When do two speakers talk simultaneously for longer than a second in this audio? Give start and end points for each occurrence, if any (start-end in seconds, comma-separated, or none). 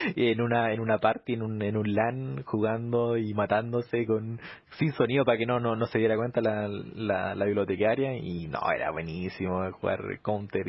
none